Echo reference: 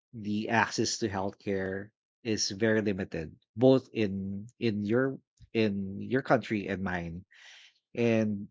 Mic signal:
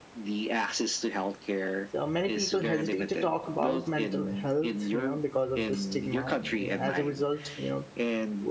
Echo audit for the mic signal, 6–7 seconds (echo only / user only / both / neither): both